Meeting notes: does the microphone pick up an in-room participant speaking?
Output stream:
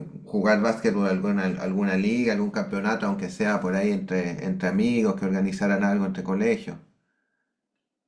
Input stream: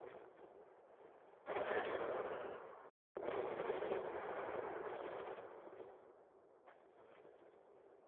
No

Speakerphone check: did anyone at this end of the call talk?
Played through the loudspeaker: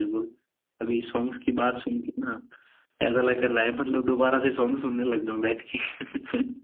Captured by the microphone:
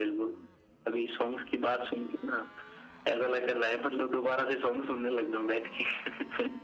No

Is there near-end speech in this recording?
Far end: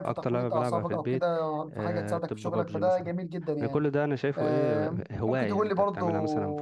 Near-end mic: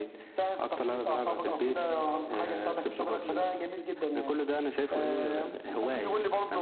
No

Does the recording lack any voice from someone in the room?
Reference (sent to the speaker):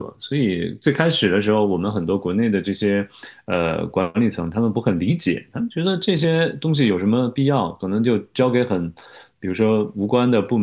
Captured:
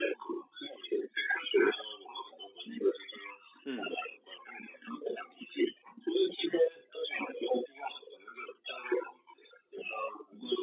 No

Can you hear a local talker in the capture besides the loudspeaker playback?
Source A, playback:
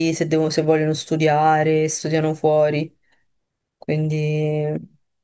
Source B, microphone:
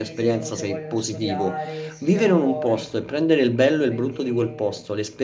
Yes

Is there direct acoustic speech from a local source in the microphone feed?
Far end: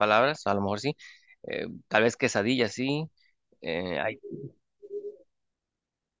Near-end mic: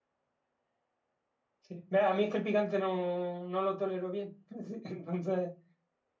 Yes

